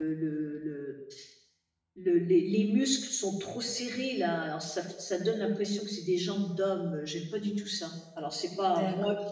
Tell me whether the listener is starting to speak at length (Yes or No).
Yes